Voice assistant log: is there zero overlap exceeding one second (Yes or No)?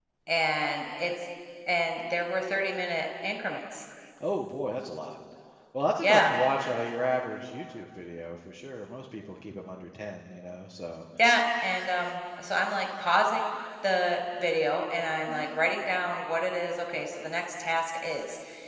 Yes